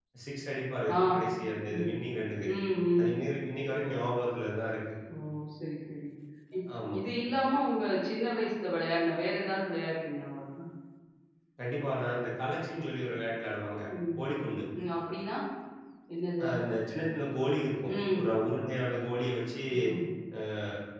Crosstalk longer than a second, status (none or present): none